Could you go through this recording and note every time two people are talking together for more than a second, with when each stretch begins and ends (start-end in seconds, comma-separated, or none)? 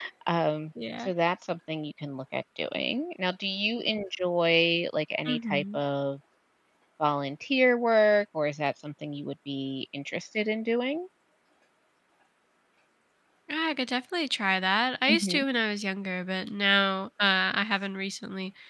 none